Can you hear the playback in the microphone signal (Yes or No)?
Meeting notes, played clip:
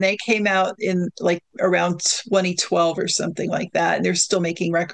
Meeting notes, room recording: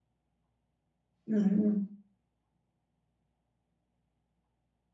No